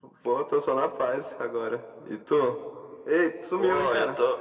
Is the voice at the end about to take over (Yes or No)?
Yes